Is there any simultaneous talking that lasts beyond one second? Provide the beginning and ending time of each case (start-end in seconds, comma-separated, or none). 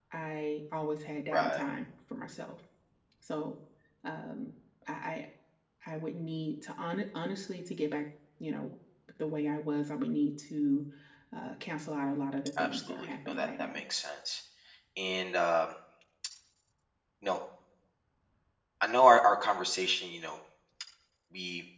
12.6-13.8